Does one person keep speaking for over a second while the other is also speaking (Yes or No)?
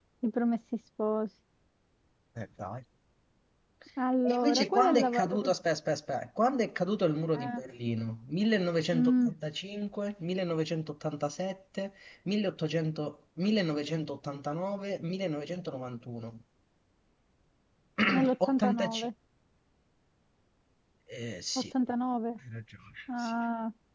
Yes